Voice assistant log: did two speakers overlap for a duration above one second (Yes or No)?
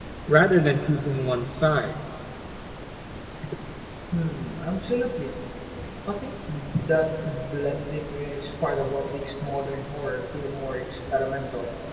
No